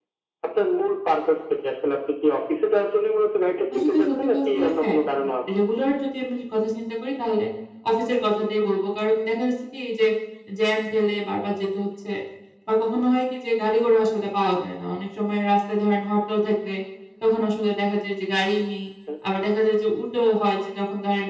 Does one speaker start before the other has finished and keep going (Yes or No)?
Yes